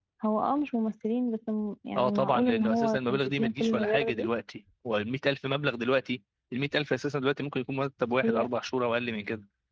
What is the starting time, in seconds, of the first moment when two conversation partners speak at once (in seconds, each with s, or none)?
2.0 s